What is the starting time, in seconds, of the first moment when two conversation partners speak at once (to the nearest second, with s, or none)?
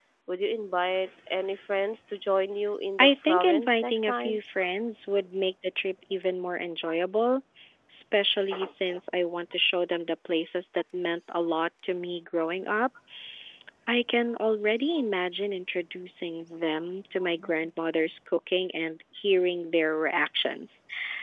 3 s